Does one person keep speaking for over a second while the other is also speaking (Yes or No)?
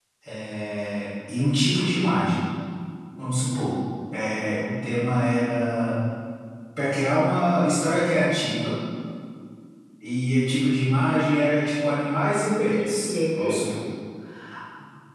Yes